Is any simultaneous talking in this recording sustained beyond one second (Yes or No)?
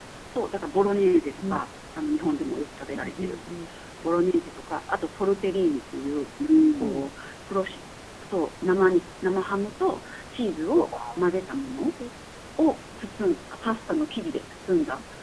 No